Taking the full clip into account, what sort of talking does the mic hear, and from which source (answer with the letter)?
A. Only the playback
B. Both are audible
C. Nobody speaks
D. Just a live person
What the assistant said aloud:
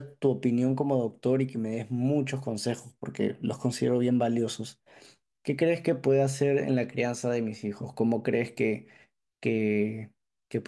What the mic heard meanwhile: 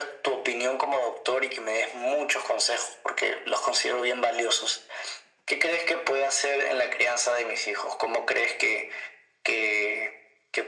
A